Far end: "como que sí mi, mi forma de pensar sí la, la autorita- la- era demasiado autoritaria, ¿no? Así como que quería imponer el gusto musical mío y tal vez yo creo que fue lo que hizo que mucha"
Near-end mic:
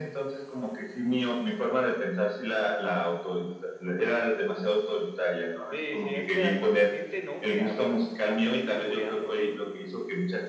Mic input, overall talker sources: both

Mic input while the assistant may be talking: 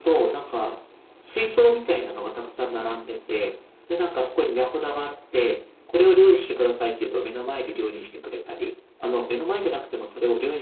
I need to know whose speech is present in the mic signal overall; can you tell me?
echo only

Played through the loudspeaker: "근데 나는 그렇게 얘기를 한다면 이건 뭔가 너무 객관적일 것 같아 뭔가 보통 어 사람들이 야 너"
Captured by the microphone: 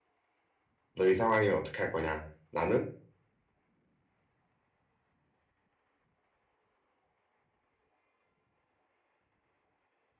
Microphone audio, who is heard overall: user only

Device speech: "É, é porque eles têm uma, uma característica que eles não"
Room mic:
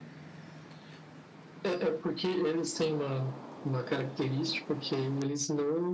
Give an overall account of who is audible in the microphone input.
echo only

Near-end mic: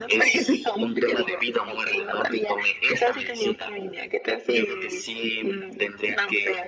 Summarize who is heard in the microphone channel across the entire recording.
echo only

